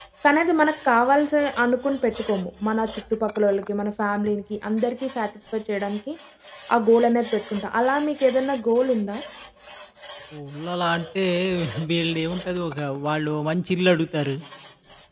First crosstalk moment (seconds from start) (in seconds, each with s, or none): none